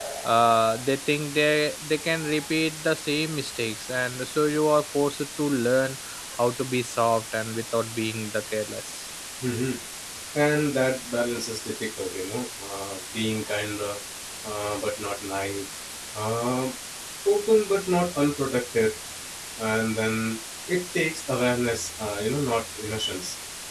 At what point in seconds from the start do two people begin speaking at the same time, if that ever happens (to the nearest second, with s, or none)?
none